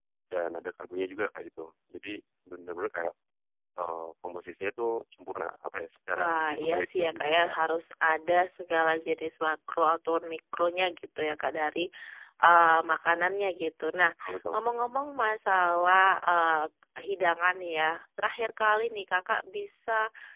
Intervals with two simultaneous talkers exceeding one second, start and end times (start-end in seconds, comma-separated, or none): 6.2-7.6